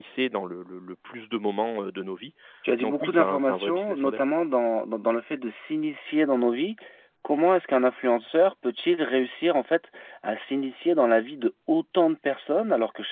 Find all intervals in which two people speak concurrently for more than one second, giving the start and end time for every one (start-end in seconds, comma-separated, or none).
2.8-4.3